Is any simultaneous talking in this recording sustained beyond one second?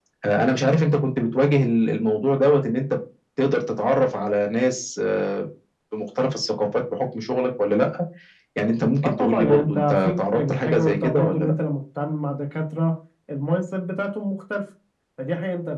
Yes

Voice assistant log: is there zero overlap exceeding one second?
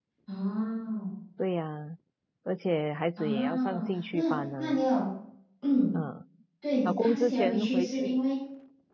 No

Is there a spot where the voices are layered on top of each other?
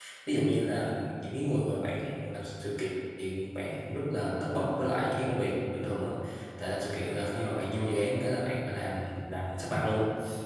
No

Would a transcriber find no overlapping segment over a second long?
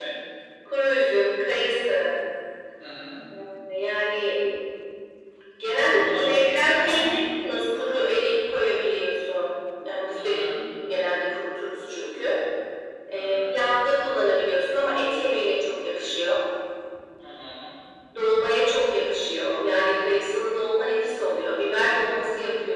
No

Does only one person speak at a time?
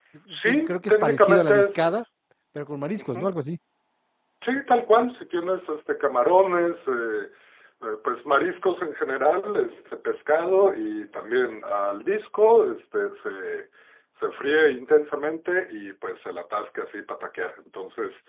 No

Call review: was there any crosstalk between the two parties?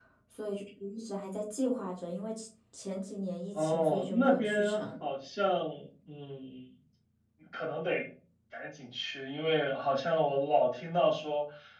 Yes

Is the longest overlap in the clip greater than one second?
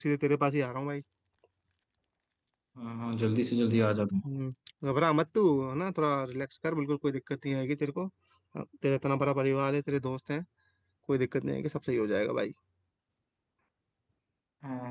No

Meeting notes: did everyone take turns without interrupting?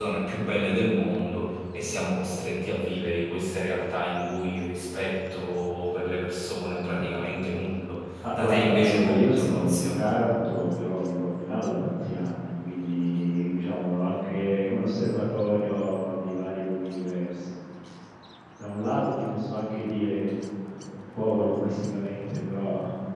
No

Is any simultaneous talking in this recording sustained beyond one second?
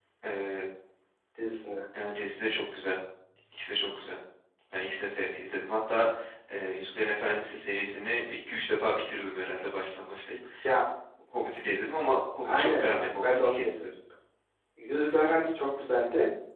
Yes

